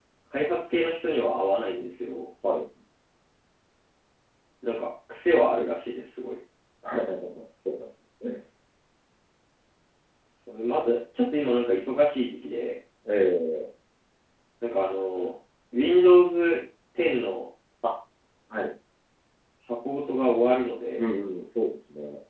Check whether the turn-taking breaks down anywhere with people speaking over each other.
No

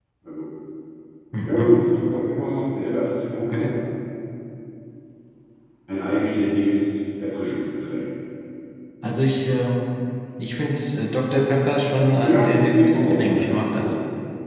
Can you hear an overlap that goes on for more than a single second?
Yes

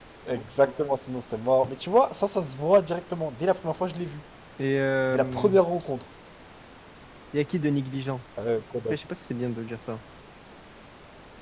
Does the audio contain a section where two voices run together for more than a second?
No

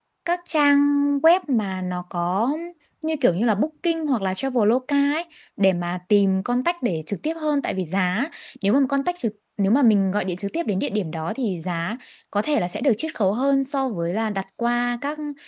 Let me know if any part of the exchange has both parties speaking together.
No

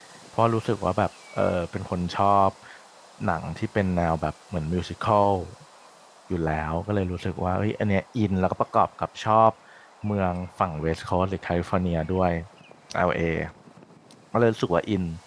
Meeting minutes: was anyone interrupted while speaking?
No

